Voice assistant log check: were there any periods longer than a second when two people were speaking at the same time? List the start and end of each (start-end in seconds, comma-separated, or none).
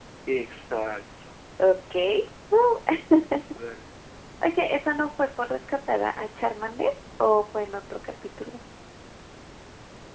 none